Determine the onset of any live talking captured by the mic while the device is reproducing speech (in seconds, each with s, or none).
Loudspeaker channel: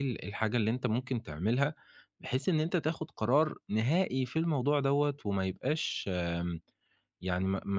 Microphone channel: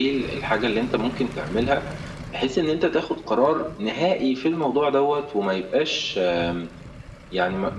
none